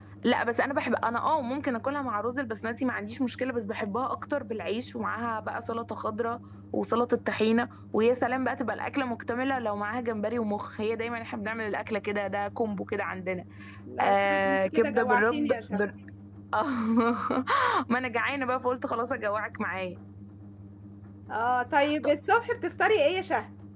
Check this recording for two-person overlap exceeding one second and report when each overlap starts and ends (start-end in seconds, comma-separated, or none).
14.0-15.8